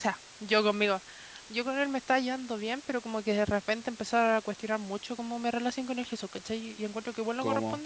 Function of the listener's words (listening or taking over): listening